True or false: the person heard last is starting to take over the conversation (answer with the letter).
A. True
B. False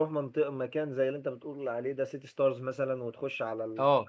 B